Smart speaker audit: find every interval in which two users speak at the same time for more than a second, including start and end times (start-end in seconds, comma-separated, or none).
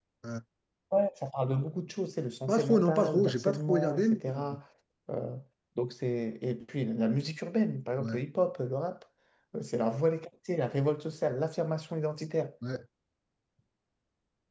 2.5-4.6